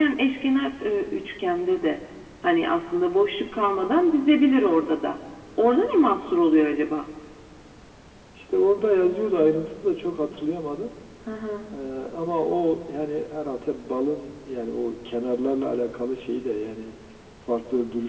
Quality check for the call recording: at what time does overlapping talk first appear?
none

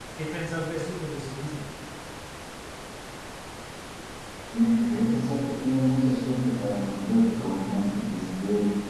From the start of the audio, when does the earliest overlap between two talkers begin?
none

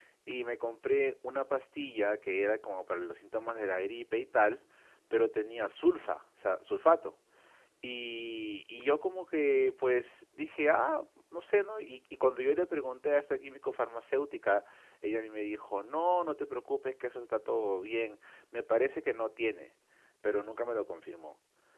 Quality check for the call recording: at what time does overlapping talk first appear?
none

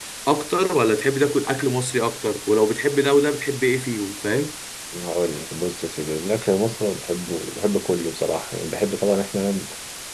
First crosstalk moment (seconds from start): none

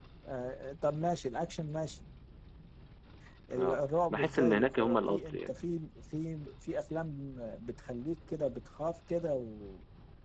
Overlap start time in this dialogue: 4 s

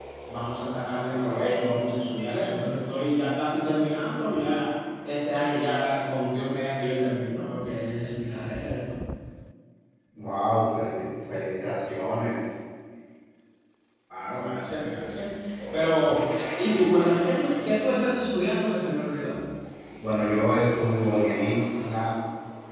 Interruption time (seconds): none

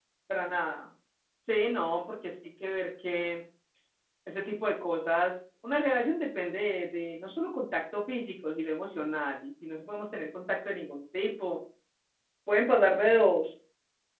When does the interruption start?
none

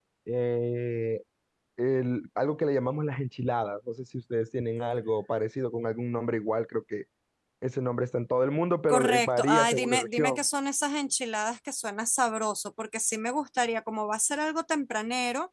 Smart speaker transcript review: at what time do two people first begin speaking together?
9 s

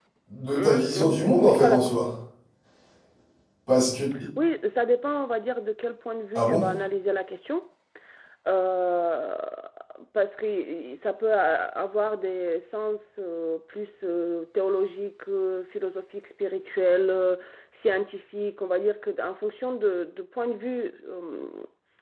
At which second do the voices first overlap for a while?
1 s

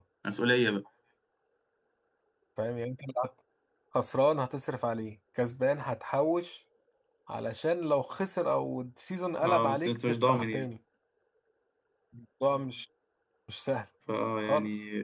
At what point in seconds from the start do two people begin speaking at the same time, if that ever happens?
9 s

